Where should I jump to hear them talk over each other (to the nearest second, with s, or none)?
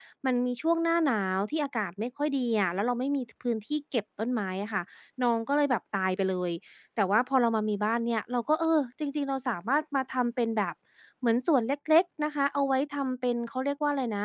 none